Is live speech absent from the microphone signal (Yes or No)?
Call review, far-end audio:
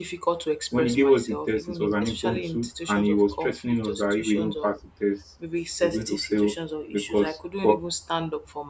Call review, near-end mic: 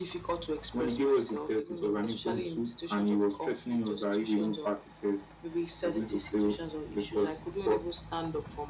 Yes